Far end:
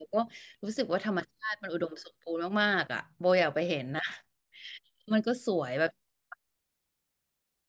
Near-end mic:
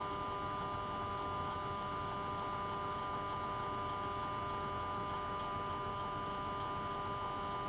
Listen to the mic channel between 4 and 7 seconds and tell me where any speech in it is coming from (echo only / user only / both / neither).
neither